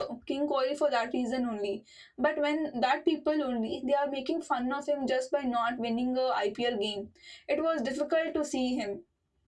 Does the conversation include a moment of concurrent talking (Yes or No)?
No